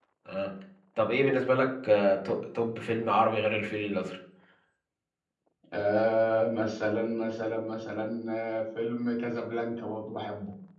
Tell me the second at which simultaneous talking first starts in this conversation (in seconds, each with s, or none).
none